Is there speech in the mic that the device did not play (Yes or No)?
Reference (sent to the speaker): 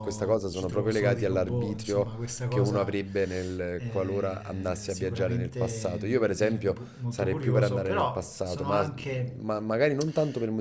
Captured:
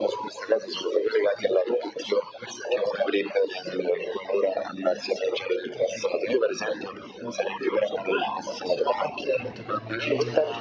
Yes